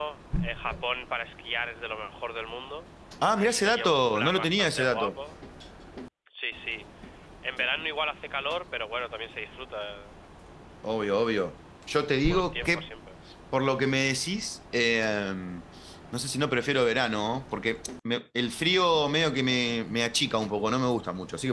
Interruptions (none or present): present